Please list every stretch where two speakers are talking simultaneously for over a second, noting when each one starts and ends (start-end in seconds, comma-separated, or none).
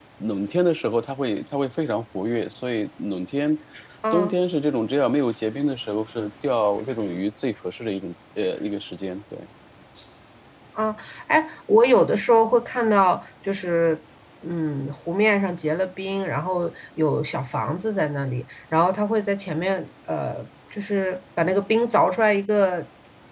none